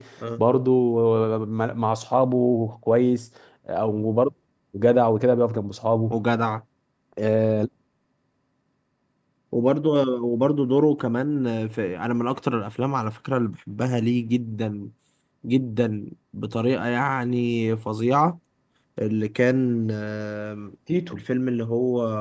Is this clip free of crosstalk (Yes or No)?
Yes